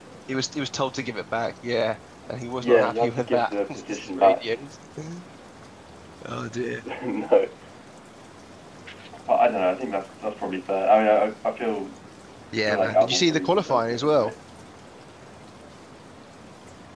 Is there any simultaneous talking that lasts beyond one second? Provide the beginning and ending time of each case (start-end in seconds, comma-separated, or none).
2.6-4.4, 12.7-14.3